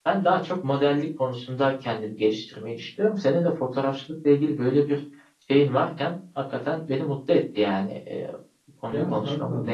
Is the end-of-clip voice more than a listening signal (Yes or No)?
Yes